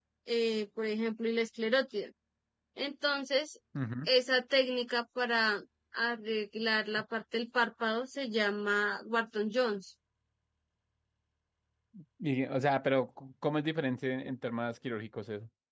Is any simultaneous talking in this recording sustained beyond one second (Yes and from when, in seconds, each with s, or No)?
No